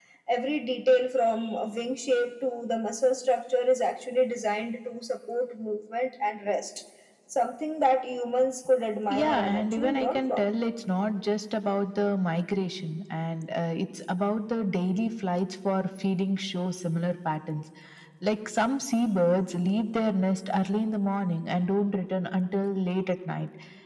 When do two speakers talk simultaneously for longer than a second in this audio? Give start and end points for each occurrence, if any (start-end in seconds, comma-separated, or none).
9.1-10.5